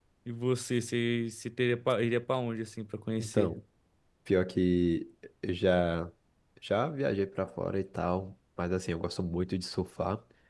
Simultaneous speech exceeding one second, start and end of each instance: none

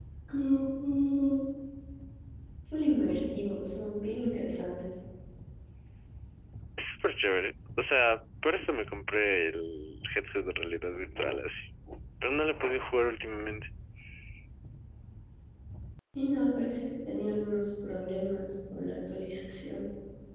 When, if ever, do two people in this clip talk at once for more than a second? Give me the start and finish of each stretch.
none

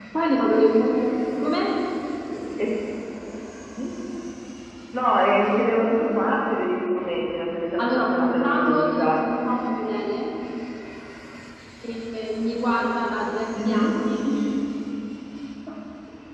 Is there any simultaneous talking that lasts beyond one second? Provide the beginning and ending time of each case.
7.8-9.2

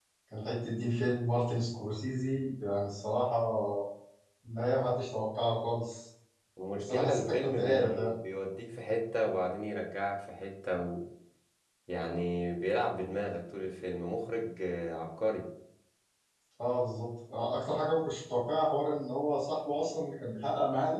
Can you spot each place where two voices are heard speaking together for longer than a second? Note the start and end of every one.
6.8-8.1

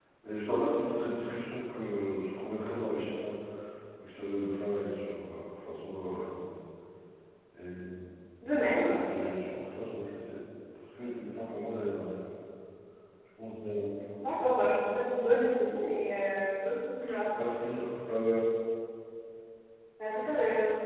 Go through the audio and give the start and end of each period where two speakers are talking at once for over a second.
none

